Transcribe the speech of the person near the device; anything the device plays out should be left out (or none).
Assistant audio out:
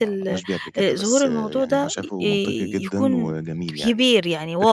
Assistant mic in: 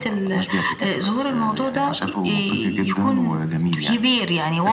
none